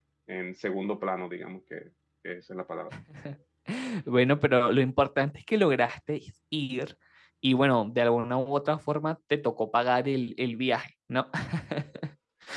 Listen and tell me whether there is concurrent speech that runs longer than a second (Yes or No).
No